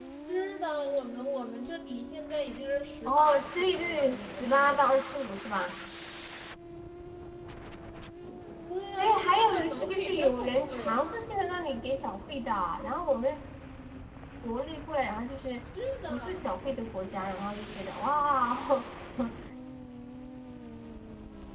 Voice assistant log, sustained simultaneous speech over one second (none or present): present